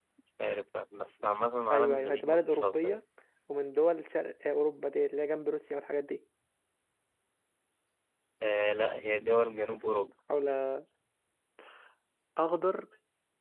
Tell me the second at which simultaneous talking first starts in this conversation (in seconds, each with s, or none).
1.7 s